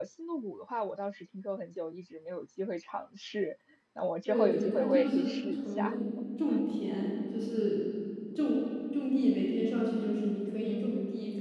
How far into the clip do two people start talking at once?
4.3 s

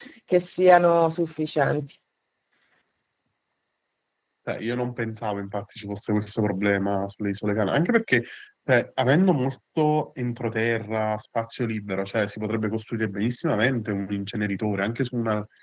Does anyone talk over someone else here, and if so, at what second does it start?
none

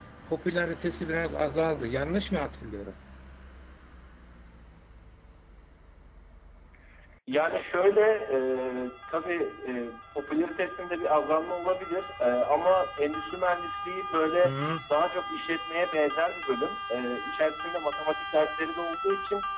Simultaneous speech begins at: none

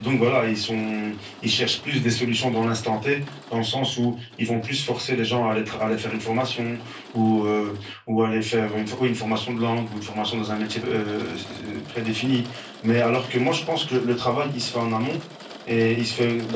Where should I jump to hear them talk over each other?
none

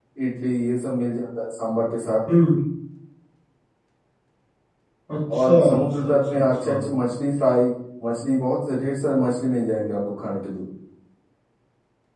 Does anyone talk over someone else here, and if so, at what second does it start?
5.4 s

